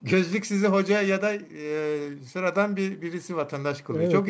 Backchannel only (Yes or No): No